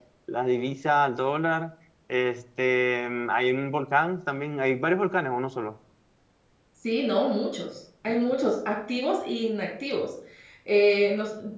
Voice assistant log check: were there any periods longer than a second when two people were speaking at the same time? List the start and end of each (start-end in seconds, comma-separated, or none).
none